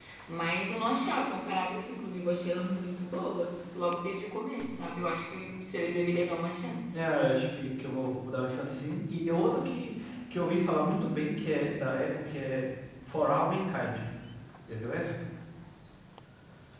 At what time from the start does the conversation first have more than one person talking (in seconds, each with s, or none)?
none